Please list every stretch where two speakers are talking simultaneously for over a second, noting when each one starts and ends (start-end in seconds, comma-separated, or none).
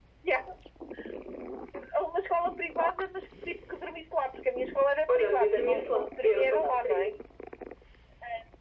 5.1-7.1